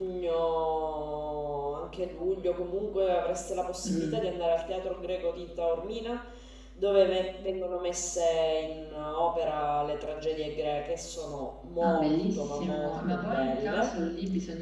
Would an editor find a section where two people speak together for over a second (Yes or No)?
Yes